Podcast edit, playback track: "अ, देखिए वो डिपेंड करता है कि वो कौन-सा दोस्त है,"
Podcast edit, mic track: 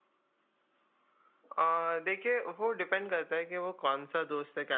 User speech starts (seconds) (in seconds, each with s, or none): none